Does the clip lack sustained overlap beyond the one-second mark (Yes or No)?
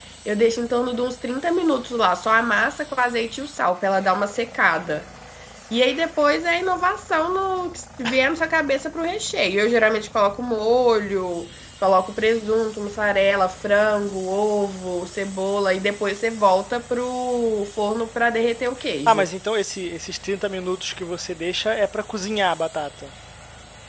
Yes